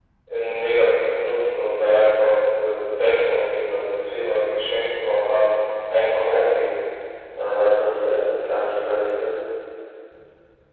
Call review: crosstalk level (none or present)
none